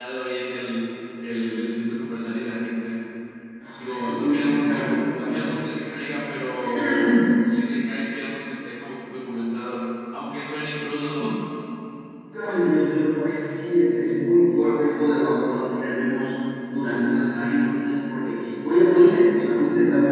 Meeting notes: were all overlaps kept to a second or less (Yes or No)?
No